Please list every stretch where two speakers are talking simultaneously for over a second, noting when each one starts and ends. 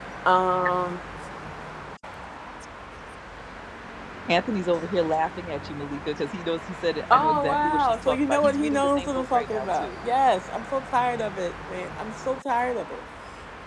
7.1-9.9

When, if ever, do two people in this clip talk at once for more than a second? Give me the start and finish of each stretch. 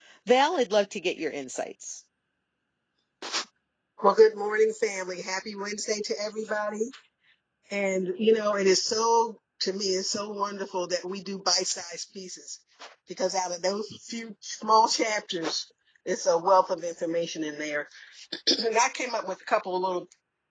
none

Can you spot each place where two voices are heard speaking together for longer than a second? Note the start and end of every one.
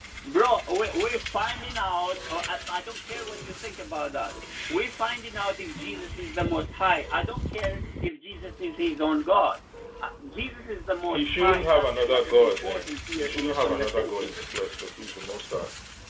11.1-14.3

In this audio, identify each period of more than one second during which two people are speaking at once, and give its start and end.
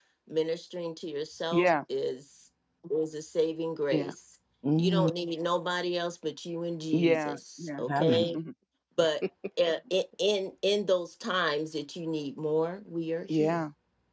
6.9-8.4

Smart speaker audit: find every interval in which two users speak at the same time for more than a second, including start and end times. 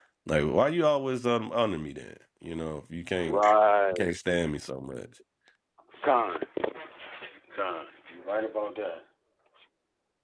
none

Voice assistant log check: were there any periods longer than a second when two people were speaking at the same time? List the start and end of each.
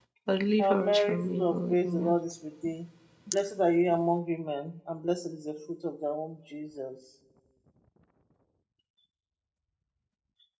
0.6-2.2

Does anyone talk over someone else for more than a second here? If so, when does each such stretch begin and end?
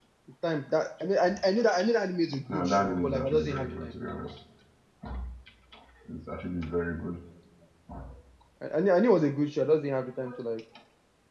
2.5-3.9

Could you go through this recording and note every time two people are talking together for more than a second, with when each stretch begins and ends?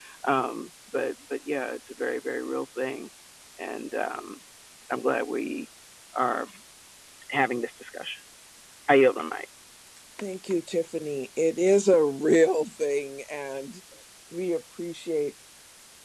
none

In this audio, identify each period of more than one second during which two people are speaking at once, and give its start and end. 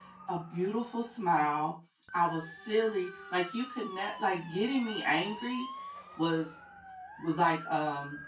none

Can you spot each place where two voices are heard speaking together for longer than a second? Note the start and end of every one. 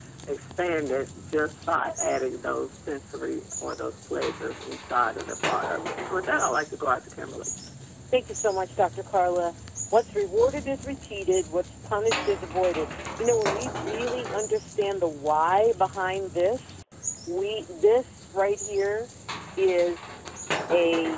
none

